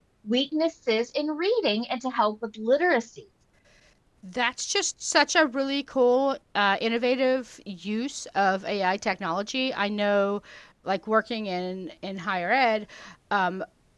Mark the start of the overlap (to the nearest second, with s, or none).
none